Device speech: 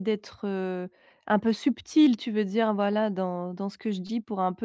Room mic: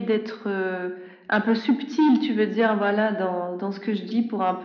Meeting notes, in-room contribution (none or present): none